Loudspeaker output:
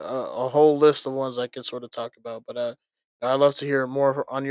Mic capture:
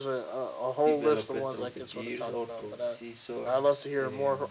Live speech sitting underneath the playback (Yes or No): Yes